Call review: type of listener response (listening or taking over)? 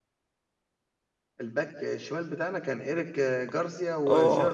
taking over